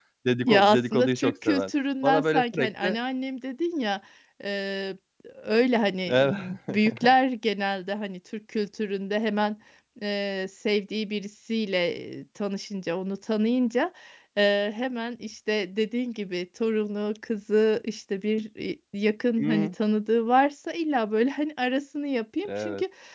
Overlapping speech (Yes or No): Yes